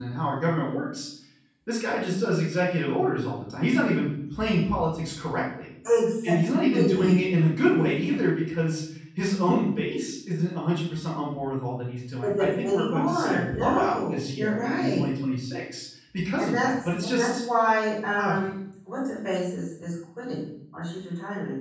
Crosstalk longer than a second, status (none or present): present